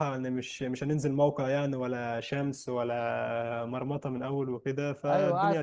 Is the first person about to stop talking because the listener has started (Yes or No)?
Yes